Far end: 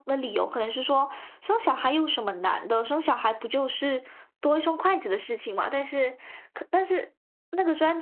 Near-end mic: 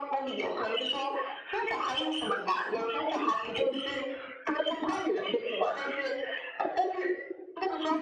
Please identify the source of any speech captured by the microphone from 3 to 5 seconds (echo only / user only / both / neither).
echo only